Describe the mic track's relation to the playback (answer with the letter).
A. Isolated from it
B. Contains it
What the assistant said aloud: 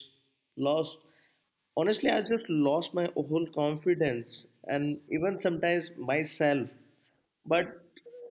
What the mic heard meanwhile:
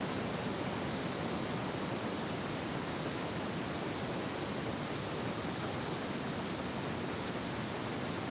A